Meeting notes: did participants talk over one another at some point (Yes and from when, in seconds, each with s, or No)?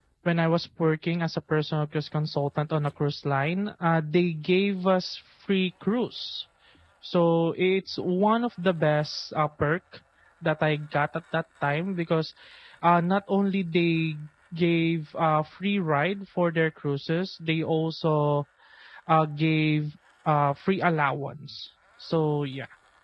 No